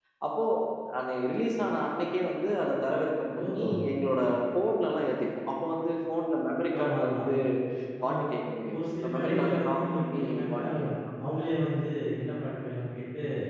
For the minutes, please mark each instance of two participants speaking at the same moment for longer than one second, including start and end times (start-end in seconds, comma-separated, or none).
8.8-10.9